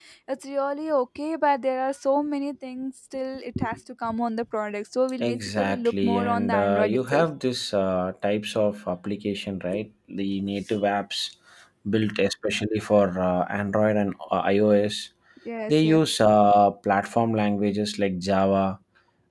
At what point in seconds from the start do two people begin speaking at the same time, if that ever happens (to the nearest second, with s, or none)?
5 s